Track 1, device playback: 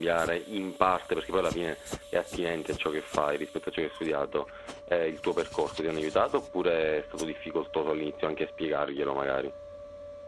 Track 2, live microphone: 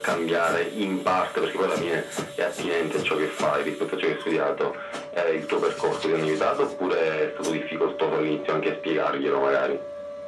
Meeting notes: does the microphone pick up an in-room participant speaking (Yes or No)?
No